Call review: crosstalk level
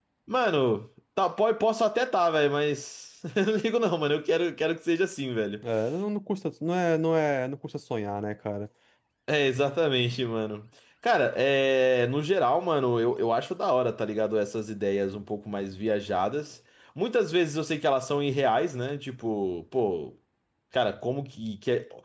none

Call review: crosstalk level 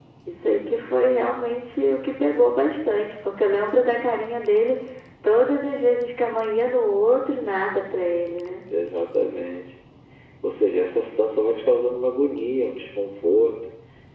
none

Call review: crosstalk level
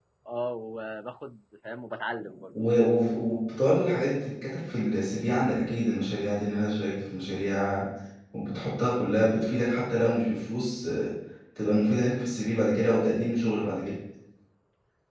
none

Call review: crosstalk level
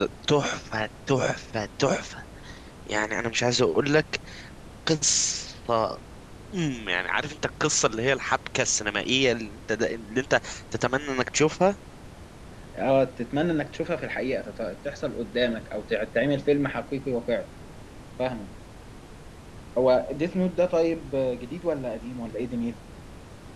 none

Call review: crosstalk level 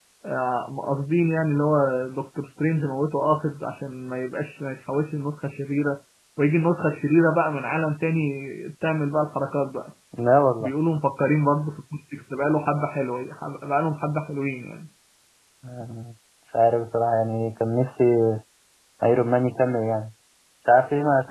none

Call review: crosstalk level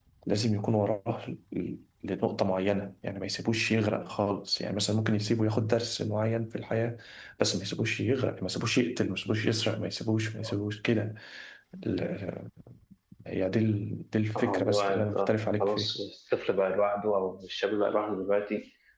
present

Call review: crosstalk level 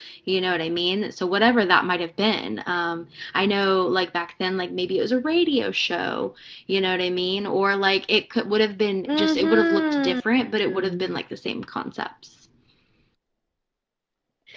present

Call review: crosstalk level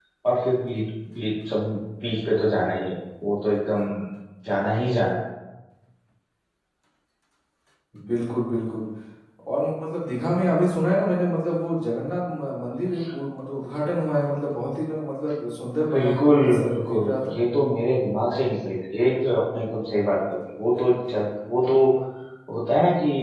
present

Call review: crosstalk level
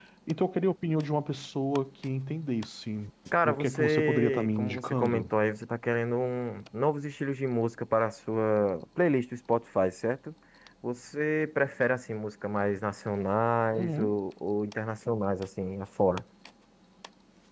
present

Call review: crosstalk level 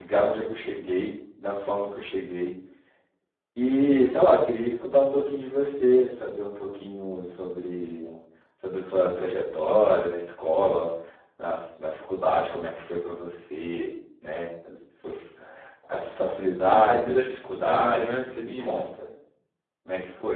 present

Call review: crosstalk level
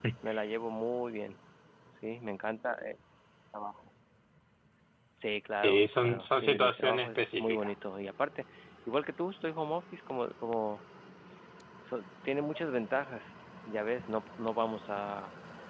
present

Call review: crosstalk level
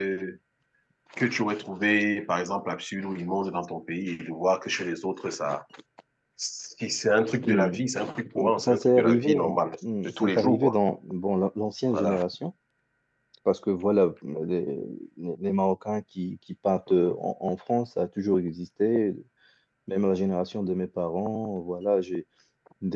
present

